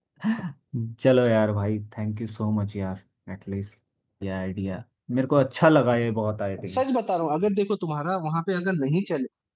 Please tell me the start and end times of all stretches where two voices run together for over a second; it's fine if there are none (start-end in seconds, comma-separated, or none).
none